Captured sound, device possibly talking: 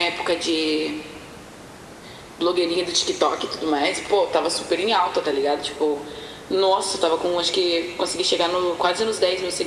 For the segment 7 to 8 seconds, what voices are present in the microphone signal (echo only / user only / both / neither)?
echo only